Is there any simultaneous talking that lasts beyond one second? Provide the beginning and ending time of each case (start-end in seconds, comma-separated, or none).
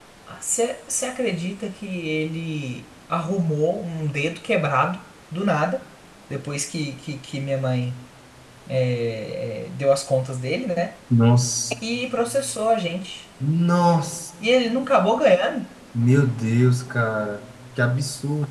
none